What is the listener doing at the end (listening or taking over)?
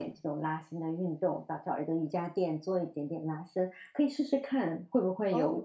taking over